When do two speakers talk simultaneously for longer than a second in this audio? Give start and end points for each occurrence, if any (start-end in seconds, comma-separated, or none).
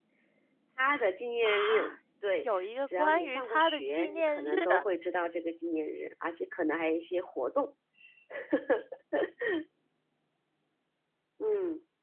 2.4-4.6